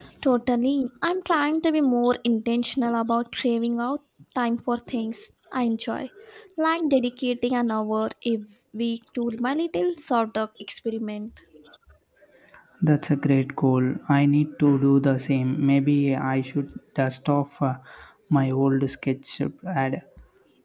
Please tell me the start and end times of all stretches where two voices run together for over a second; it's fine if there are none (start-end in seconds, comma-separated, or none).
none